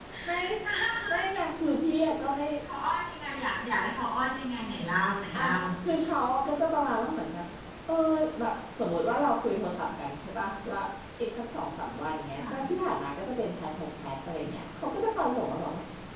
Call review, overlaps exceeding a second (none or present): none